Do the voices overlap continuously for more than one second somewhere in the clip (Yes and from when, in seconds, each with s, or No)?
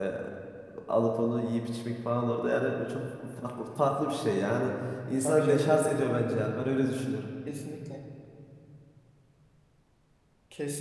No